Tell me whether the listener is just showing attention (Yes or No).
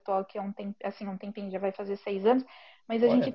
Yes